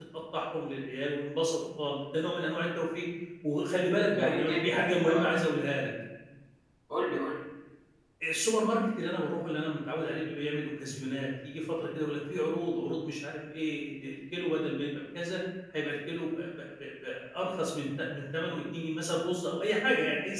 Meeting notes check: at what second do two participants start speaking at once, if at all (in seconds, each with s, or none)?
4.1 s